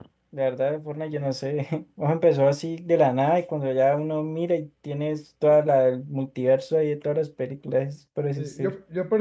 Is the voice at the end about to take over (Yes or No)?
Yes